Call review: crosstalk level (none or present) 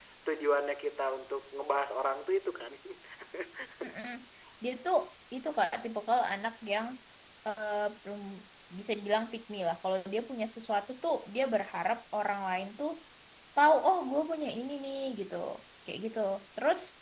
none